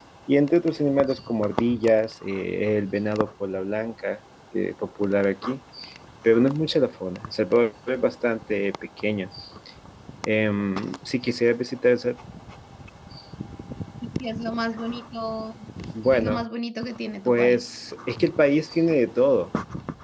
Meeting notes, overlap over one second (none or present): none